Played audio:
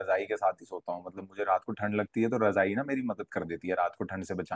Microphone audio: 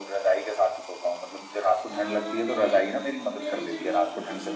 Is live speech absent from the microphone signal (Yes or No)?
No